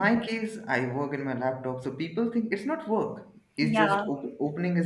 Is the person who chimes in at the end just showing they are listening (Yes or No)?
Yes